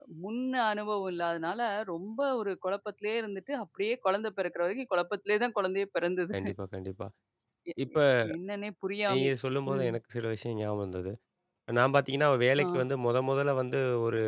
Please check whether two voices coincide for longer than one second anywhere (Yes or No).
No